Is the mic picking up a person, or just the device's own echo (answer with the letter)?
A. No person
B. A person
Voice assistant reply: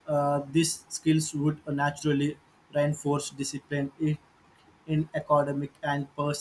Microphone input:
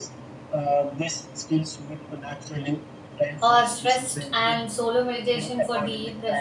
B